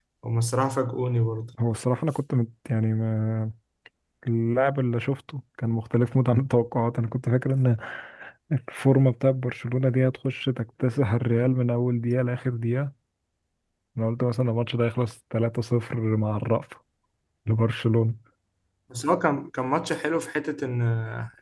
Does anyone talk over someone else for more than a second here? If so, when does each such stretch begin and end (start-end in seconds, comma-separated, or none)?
none